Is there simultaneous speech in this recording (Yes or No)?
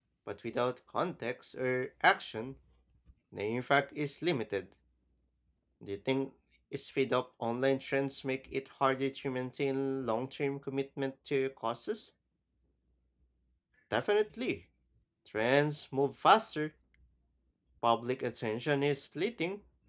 No